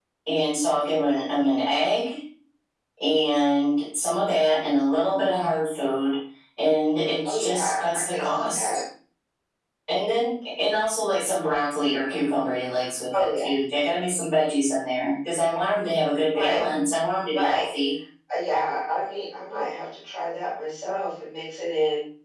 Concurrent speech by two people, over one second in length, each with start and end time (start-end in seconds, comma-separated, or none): 7.2-8.7